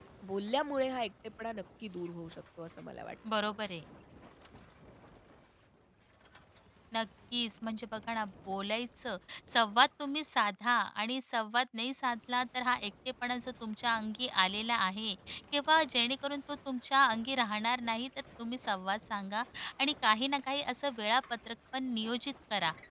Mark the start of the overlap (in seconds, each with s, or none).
none